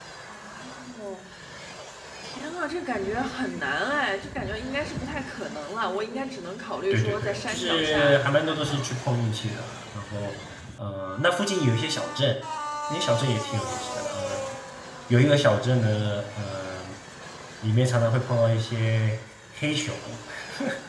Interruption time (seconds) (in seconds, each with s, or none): 6.9 s